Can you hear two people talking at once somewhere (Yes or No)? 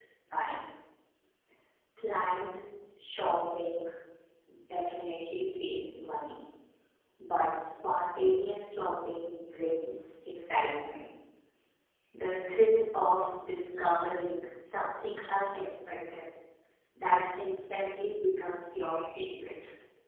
No